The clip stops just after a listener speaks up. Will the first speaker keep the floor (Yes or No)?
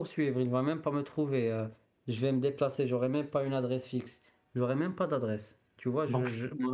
Yes